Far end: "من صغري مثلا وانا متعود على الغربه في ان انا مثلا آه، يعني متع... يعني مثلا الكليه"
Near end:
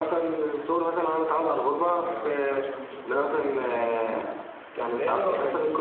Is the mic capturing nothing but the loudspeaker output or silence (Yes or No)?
No